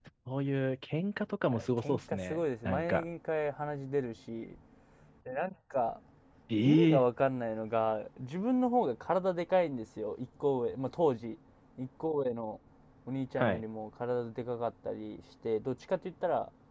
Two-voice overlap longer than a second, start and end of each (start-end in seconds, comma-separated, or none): 1.8-3.0